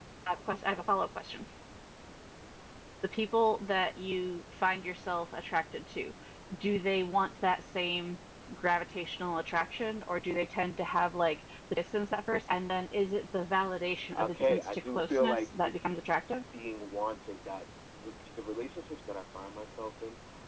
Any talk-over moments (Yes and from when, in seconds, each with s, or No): Yes, from 14.1 s